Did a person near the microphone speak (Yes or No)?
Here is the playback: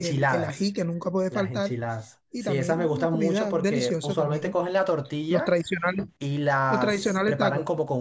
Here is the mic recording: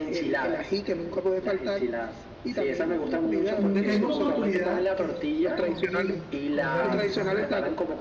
Yes